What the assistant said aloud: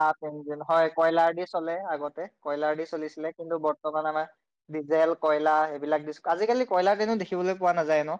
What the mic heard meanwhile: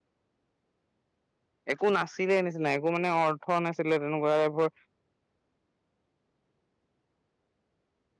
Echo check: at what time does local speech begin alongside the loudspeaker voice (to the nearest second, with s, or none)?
2 s